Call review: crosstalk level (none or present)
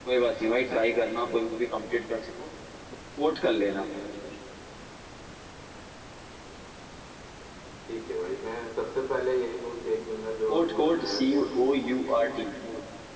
present